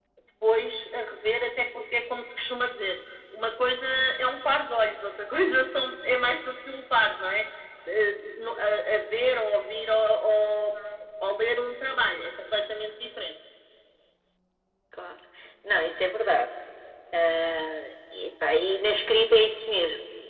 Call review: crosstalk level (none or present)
none